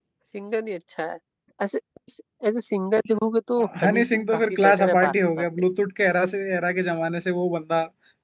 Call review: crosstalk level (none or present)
present